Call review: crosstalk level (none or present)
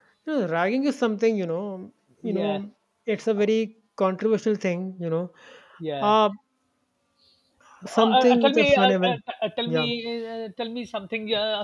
present